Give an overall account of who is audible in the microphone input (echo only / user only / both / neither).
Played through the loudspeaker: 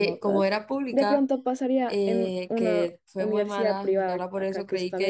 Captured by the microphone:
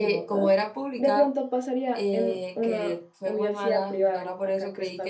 echo only